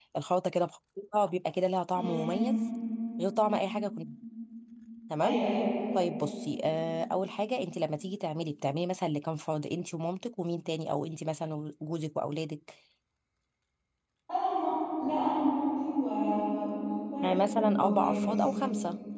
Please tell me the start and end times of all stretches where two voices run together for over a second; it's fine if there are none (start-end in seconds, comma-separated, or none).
17.2-18.4